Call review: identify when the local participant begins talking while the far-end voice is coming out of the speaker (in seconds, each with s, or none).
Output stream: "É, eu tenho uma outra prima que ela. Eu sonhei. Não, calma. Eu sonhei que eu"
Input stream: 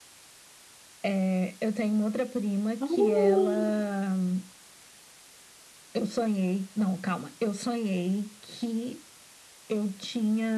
2.8 s